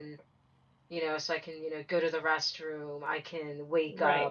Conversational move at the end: listening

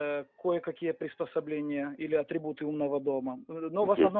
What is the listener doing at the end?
listening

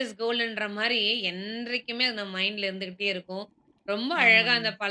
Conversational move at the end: listening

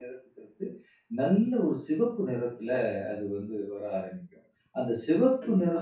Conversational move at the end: listening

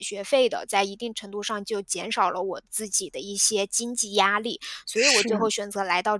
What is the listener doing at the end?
listening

